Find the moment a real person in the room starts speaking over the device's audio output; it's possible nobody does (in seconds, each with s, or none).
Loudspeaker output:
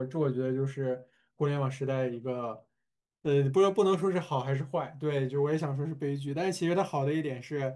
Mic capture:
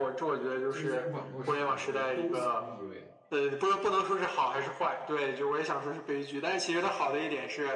0.7 s